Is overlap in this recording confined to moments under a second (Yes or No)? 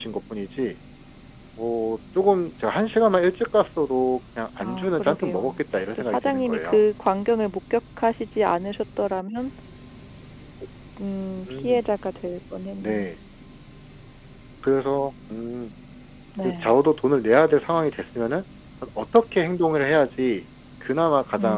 No